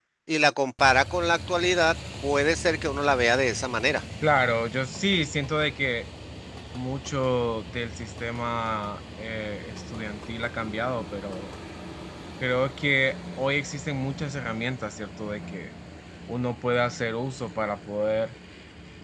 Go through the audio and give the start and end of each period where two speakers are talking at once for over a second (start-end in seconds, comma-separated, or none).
none